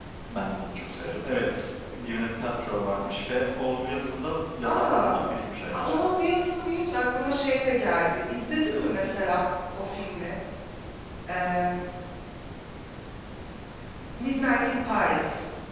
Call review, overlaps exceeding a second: none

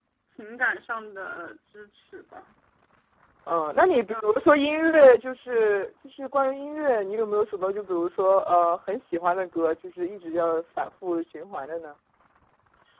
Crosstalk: none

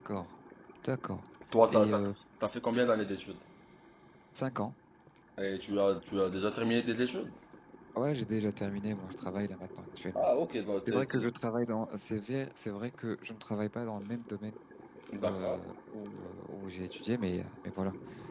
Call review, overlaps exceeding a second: none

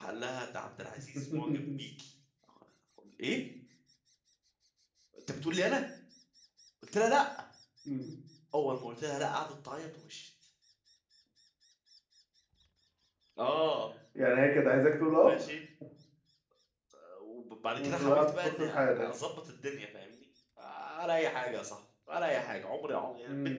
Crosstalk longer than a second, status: present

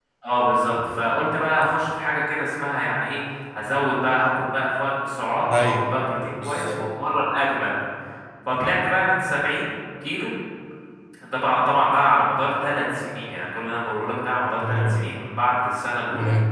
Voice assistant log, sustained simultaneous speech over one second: none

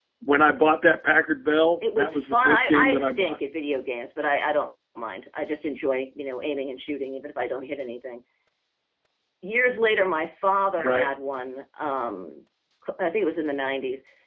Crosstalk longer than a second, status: present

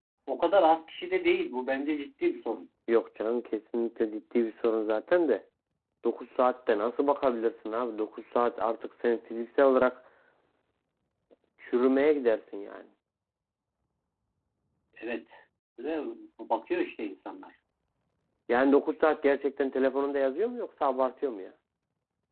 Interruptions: none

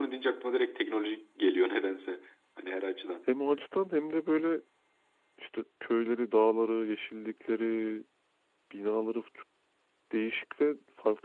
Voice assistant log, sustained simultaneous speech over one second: none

